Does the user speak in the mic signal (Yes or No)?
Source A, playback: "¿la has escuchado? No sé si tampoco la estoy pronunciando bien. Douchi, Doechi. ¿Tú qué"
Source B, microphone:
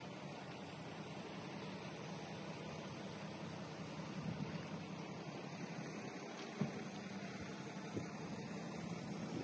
No